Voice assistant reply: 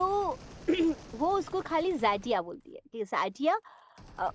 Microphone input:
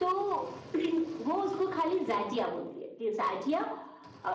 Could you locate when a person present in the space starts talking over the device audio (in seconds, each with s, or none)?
none